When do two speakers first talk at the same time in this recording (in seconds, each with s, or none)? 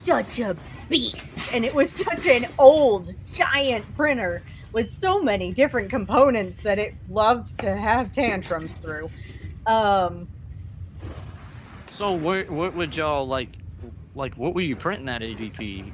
none